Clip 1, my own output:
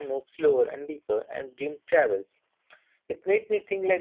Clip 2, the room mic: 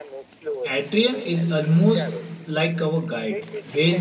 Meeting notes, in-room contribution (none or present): present